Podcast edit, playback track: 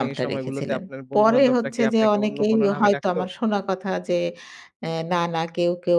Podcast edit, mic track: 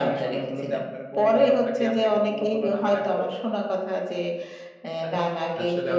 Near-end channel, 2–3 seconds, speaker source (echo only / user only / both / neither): echo only